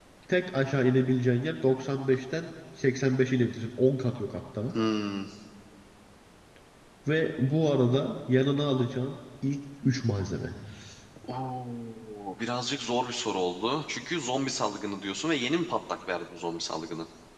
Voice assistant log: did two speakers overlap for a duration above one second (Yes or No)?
No